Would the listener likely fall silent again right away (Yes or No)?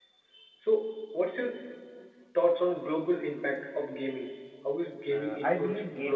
No